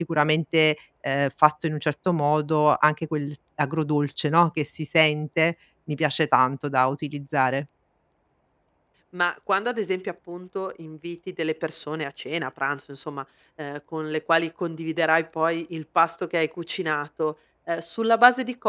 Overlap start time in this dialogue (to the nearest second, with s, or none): none